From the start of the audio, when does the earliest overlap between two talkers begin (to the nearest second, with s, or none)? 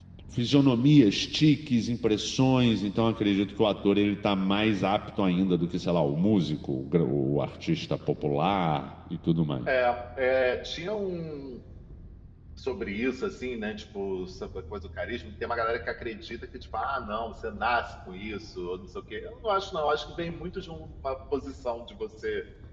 none